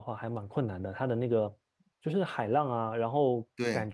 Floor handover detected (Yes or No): No